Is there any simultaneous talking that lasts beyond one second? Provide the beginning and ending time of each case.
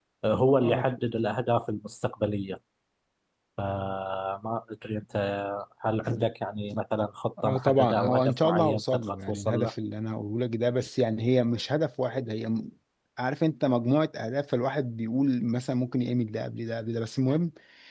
7.4-9.7

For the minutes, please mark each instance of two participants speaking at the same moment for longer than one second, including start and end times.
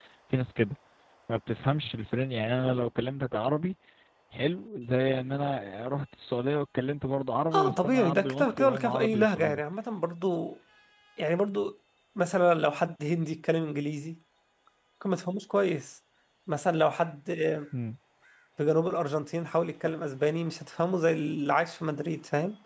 7.5-9.6

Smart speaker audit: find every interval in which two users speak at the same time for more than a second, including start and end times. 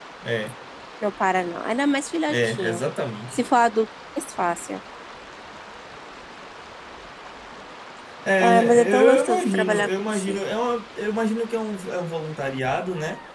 8.4-10.4

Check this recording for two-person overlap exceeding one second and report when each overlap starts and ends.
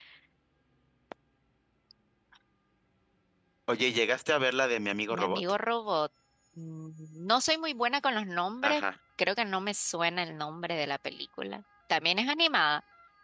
none

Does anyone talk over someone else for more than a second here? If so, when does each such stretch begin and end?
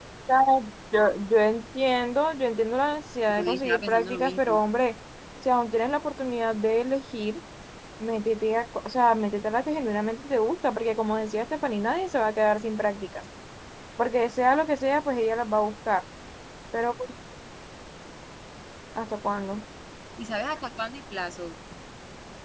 3.3-4.6

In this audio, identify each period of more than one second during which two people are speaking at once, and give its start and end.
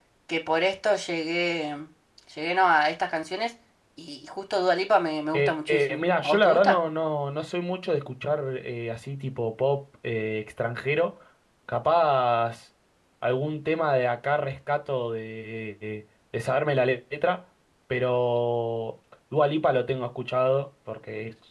5.3-6.8

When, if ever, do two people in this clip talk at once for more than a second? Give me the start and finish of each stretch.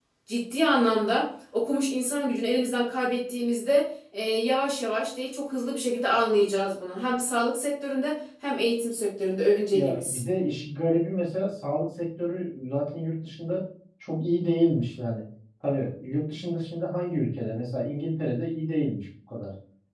none

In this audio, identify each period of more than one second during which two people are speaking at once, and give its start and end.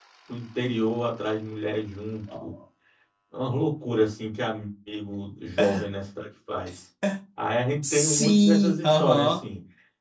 7.9-9.4

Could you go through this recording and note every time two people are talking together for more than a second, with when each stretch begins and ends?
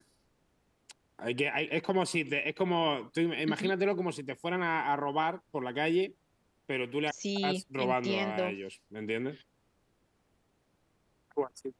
7.1-8.5

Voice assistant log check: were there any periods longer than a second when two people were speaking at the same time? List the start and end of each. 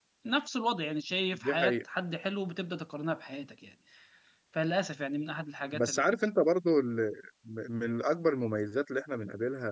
none

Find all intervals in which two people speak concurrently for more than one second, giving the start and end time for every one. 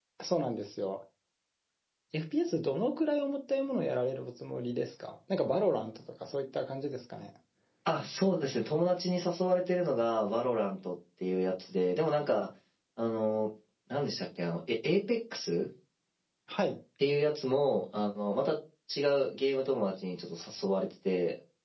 none

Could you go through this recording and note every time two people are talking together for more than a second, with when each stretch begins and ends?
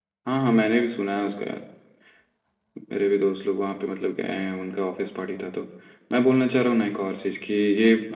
none

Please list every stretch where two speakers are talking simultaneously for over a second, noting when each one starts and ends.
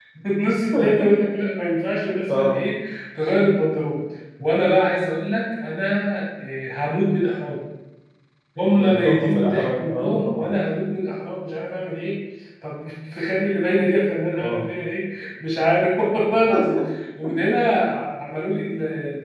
8.7-10.6

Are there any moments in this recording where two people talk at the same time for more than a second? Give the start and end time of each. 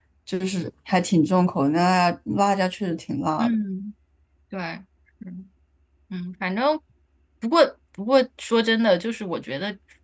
none

